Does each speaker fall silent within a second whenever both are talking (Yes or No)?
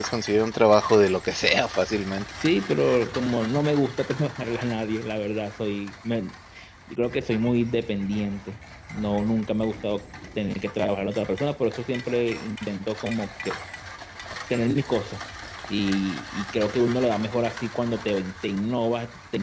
Yes